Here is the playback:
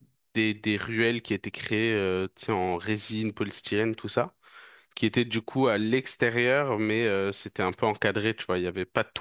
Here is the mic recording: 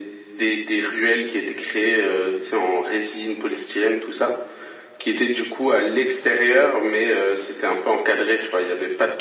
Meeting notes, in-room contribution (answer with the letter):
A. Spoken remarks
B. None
B